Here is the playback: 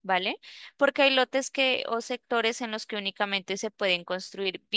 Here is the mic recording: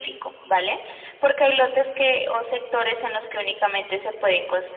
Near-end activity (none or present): none